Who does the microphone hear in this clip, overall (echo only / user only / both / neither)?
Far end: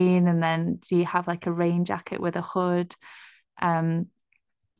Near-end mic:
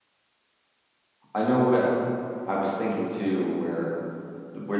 user only